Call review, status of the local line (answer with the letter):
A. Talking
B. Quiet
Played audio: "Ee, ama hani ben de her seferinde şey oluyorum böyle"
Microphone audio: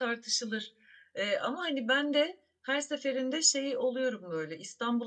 B